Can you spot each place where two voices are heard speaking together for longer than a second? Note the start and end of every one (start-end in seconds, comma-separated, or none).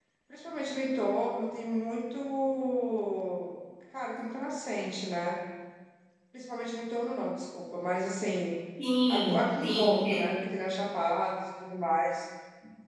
9.1-10.4